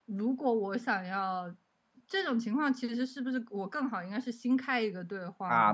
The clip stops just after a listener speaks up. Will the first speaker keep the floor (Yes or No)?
No